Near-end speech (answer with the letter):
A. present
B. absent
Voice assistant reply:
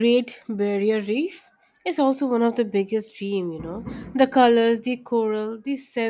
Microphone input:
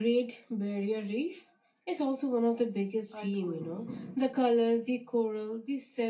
A